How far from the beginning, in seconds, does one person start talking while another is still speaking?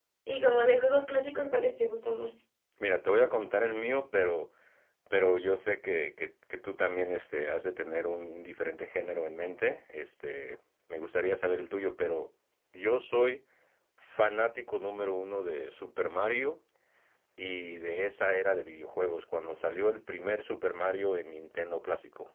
none

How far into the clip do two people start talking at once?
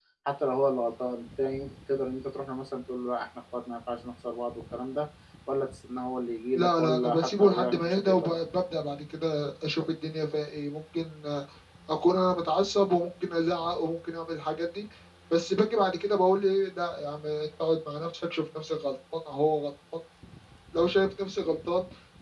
6.5 s

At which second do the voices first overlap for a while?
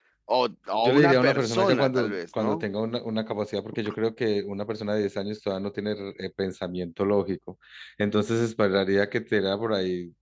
0.8 s

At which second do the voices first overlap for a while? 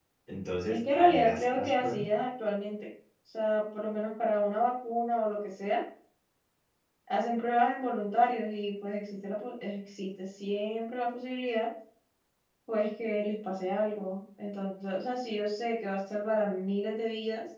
0.7 s

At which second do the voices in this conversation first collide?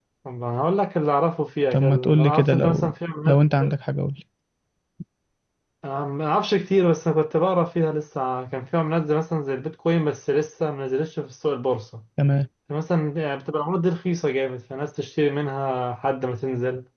1.7 s

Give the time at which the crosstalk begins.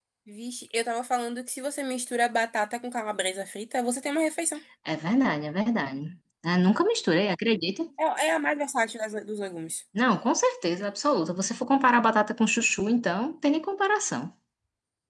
none

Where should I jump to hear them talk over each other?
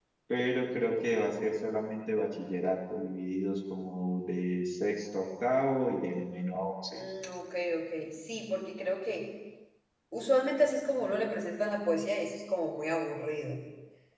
none

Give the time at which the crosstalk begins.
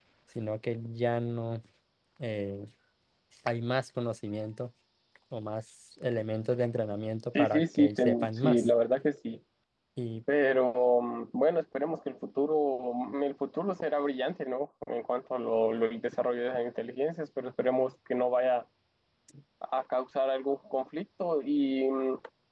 7.3 s

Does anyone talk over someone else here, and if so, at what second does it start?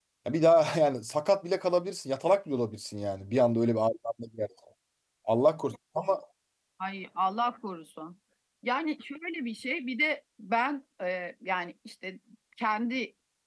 none

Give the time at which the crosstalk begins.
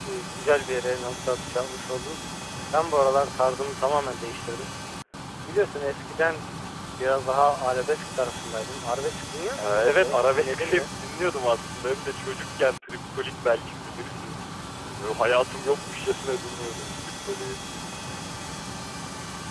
9.6 s

